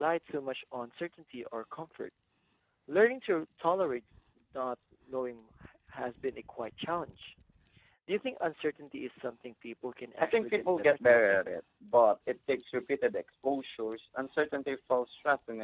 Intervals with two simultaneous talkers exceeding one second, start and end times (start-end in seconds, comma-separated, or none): 10.2-11.4